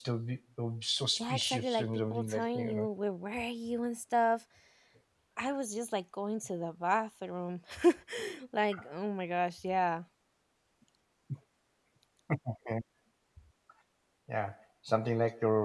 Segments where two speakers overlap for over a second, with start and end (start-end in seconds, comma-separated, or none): 1.2-2.9